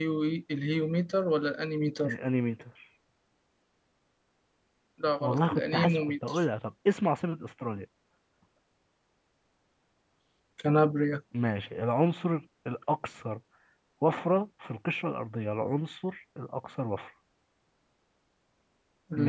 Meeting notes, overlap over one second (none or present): present